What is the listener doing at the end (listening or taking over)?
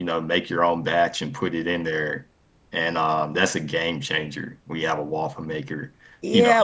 taking over